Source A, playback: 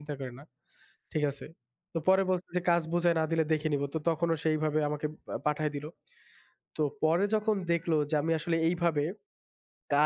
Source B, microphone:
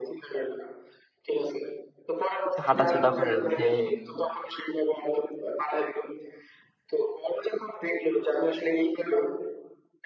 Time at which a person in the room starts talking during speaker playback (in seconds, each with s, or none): 2.5 s